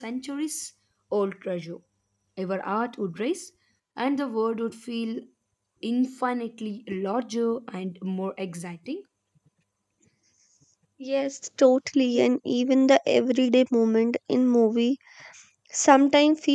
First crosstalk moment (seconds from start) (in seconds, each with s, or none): none